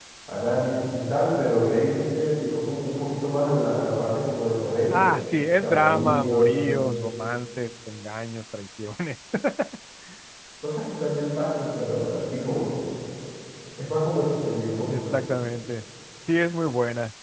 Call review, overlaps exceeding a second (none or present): present